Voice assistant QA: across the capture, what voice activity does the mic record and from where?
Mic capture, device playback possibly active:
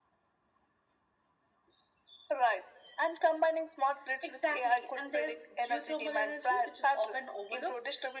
echo only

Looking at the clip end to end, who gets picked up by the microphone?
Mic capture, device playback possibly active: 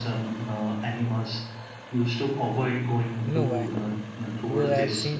both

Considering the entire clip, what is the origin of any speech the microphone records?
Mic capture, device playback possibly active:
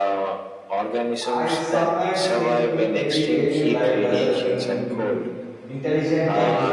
both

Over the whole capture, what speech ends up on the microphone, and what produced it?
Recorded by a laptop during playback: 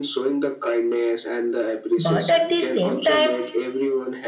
both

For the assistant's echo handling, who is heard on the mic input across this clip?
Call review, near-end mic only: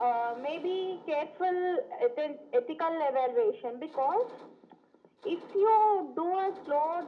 echo only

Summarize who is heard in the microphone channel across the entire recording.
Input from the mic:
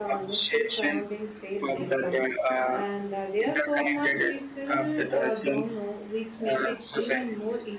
both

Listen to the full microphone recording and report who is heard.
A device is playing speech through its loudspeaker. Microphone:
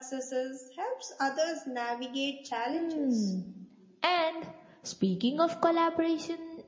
echo only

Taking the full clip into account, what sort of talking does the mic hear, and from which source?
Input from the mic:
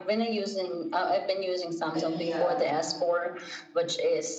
both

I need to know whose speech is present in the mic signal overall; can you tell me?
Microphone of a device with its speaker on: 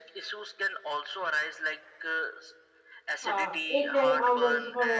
both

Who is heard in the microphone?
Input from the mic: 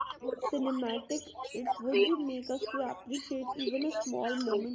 both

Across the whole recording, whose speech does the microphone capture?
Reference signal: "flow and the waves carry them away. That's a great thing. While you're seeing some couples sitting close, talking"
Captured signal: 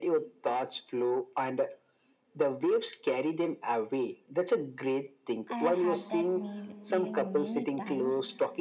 both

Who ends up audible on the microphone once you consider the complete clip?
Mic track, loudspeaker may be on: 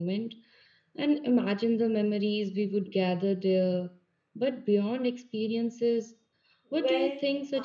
both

